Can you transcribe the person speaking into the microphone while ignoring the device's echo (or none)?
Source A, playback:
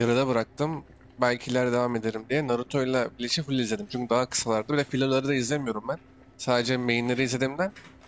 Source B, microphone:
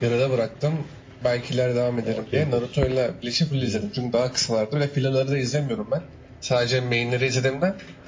O Kempich. Aynen.